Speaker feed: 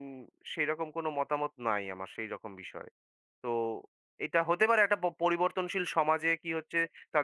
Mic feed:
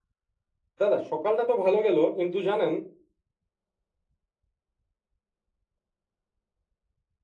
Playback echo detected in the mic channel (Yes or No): No